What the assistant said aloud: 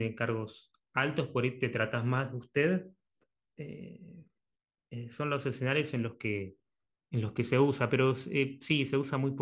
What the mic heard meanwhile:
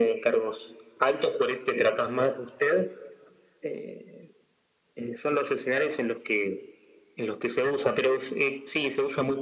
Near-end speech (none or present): none